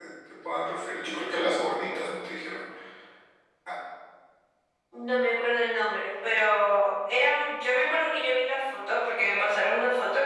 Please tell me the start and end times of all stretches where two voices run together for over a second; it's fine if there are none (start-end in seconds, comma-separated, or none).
none